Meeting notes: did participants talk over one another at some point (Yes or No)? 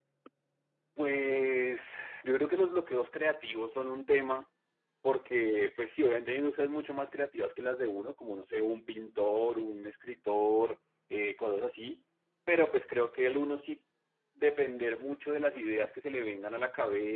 No